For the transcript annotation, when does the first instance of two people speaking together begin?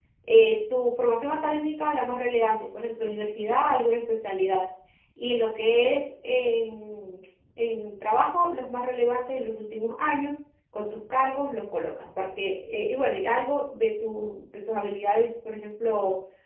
none

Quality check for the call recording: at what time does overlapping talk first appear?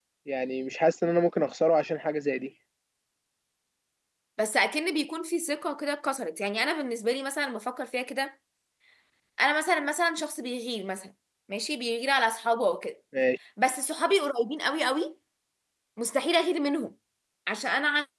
none

